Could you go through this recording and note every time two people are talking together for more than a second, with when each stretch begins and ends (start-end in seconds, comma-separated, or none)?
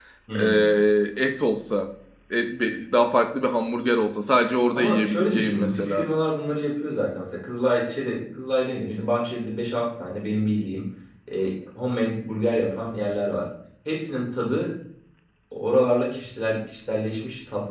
4.7-6.1